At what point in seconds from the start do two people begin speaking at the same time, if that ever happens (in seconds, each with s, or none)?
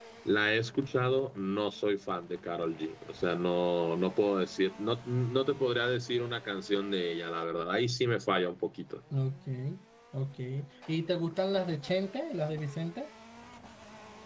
none